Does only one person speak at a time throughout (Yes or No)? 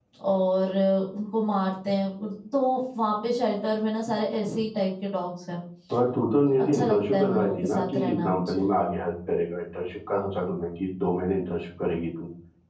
No